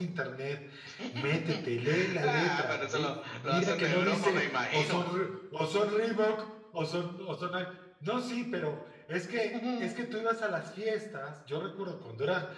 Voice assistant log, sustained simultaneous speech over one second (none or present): present